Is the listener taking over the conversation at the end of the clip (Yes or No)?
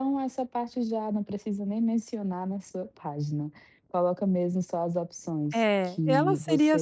Yes